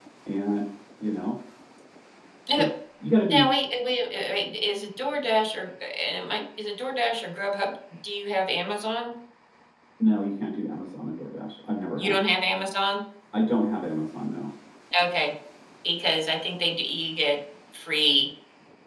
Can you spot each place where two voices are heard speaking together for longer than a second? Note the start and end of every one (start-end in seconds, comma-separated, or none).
none